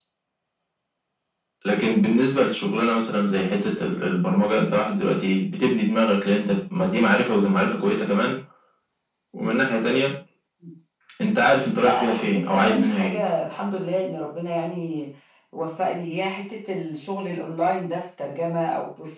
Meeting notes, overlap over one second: present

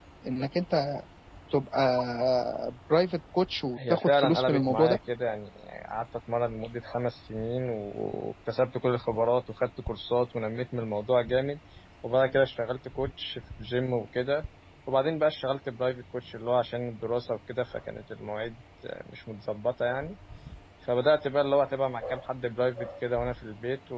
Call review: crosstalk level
present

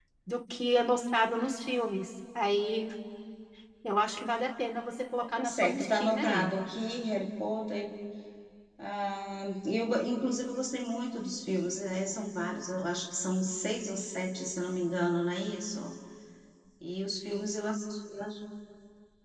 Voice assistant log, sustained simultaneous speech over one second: present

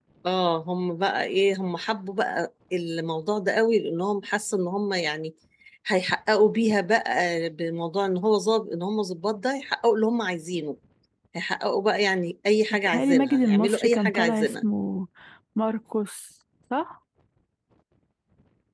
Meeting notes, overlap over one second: present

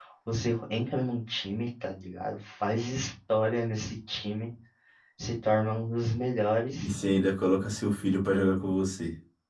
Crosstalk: none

